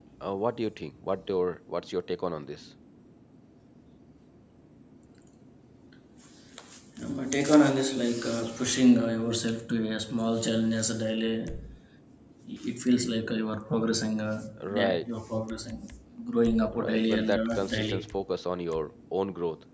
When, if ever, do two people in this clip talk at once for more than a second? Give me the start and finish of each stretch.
16.8-18.0

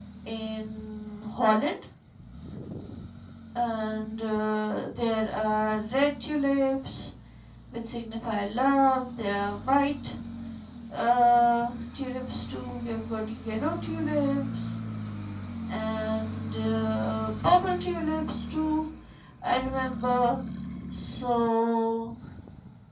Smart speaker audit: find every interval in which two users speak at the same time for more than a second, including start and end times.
none

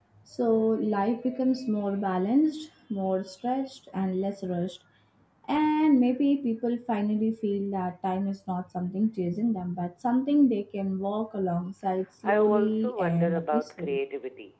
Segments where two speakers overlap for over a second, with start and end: 12.2-14.0

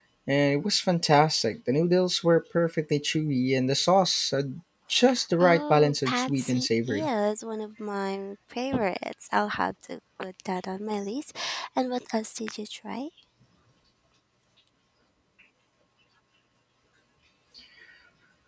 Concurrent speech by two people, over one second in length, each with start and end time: 5.4-7.1

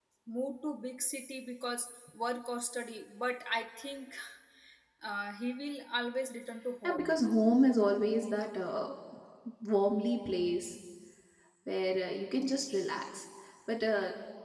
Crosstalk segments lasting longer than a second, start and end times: none

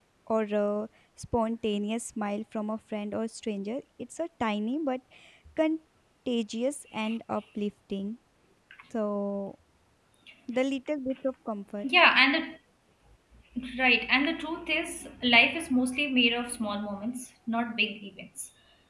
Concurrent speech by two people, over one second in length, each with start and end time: none

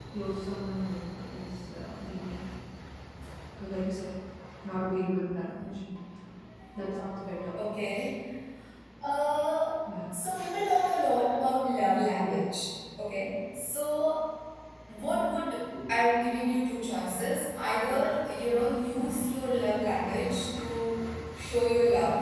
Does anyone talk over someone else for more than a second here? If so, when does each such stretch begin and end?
none

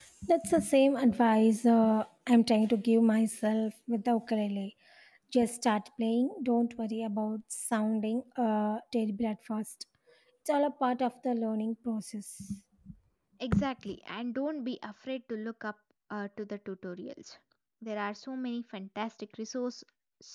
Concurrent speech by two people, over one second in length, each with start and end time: none

